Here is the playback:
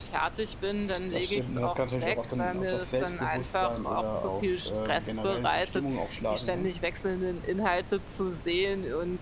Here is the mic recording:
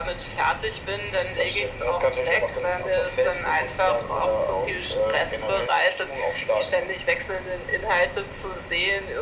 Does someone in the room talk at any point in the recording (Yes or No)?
No